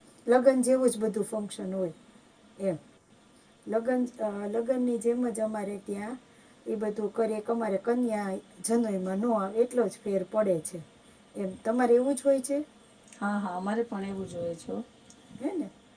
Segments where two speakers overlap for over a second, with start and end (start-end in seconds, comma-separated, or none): none